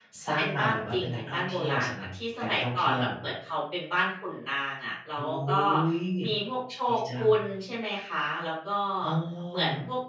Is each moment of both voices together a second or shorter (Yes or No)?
No